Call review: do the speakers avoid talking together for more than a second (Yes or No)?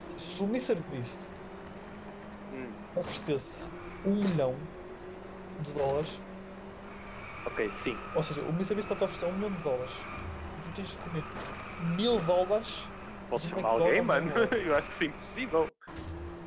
No